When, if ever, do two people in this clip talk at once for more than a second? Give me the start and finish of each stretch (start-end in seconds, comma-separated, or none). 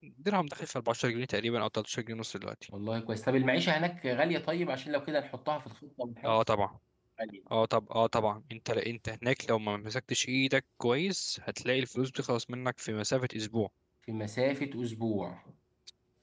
none